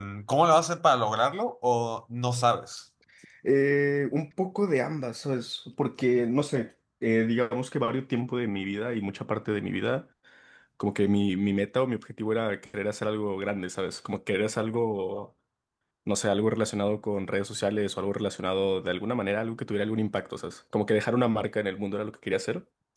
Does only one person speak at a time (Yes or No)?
Yes